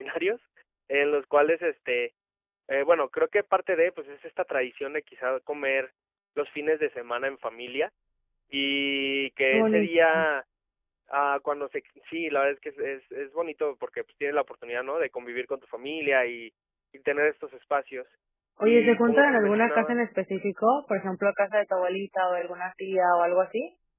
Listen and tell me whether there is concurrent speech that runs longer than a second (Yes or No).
Yes